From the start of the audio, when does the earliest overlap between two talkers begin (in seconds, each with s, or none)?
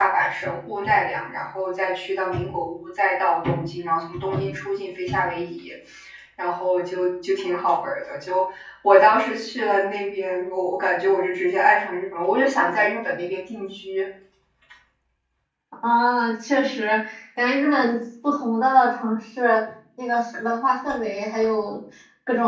none